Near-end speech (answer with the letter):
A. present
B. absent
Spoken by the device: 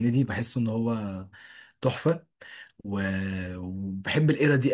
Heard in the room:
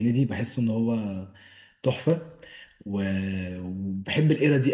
B